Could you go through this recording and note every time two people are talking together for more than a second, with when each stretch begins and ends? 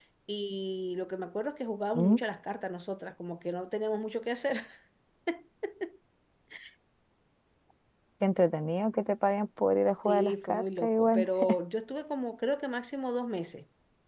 10.0-11.3

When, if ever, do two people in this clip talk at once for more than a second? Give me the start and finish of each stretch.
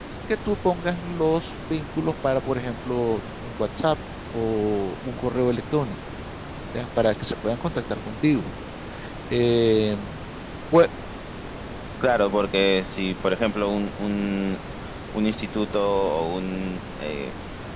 none

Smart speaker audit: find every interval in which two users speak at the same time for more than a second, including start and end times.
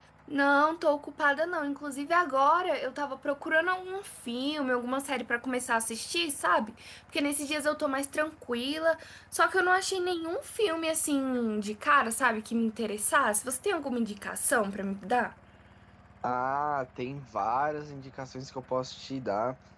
none

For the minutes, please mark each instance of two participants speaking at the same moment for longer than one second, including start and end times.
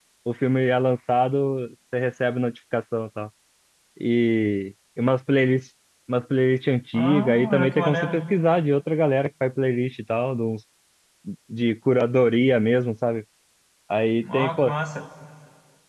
6.9-8.1

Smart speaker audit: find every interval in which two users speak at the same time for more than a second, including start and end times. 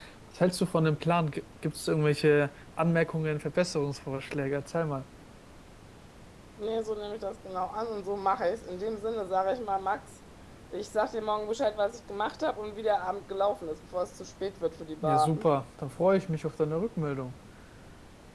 none

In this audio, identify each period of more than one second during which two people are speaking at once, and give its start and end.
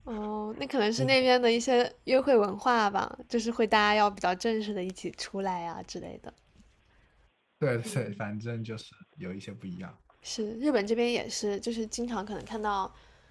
none

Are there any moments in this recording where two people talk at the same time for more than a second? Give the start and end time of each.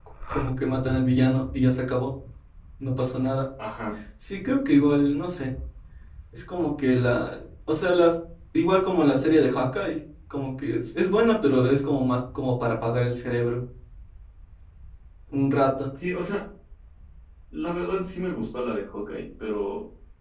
none

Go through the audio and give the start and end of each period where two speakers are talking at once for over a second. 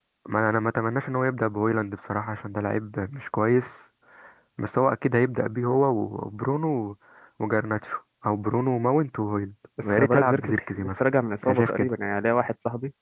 9.8-11.0

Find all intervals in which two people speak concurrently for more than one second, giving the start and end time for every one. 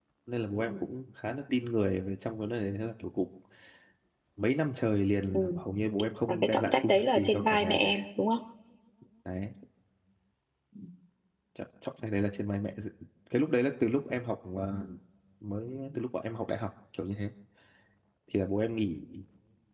6.3-8.0

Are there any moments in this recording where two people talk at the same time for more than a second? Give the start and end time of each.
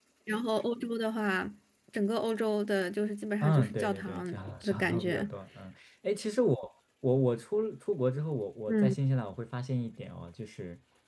3.4-5.3

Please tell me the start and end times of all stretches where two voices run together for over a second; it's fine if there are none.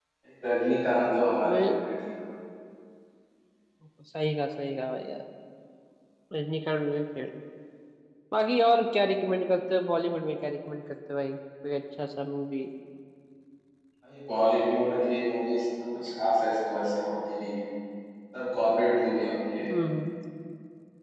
none

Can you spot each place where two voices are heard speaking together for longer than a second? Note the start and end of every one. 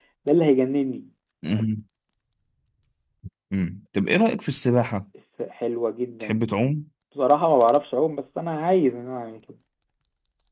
none

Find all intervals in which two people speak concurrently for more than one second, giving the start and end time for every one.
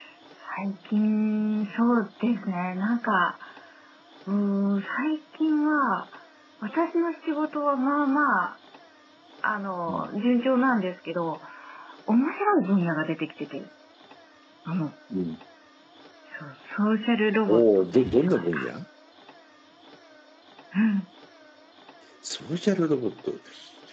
17.5-18.7

